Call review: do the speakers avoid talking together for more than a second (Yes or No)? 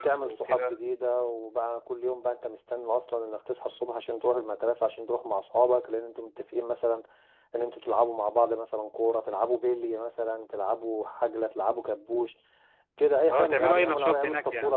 No